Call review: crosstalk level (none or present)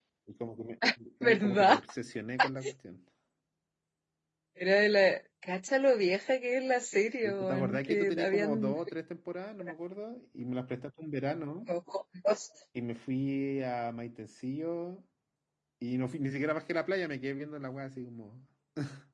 present